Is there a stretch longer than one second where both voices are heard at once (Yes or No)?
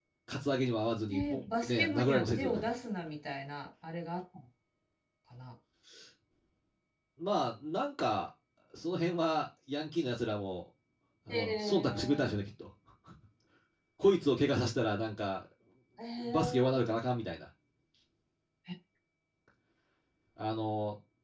Yes